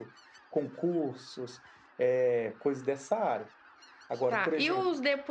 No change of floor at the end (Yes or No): No